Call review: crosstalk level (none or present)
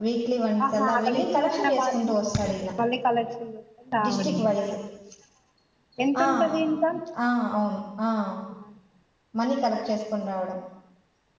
present